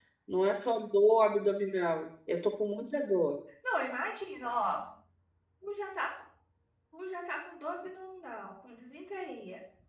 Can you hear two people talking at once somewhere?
No

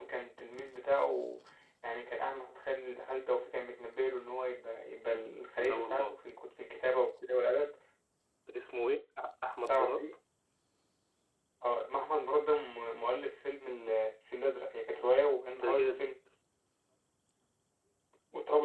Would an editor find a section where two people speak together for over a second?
No

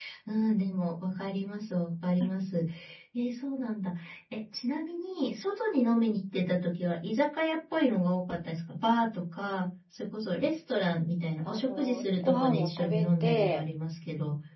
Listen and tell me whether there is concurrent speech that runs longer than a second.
Yes, from 11.4 s

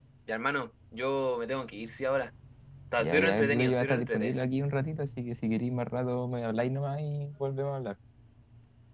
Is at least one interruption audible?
Yes, from 3.0 s

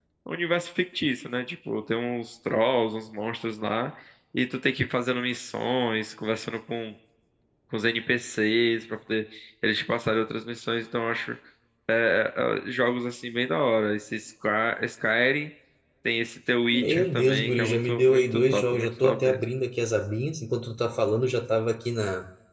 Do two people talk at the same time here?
Yes, from 16.7 s

